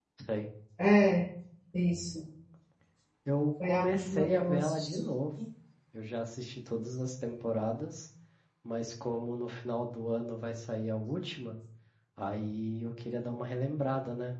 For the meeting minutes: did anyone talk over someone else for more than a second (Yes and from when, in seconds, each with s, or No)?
Yes, from 3.6 s